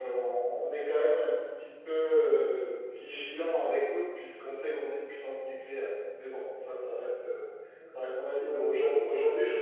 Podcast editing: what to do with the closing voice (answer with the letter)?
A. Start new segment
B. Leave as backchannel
B